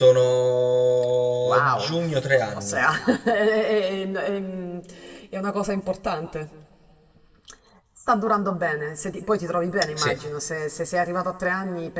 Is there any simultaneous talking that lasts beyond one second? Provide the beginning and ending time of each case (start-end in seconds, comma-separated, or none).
1.4-2.8